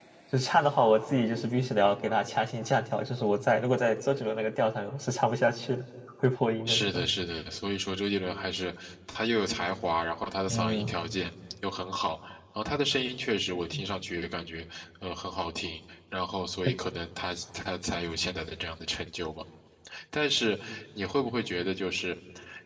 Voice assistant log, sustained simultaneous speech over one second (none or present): none